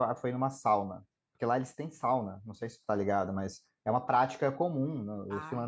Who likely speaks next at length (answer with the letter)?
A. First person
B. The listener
A